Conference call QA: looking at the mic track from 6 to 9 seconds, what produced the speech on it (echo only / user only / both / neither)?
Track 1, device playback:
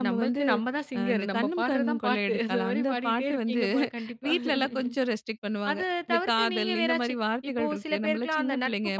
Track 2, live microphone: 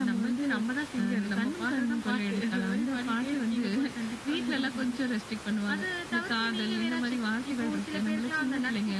echo only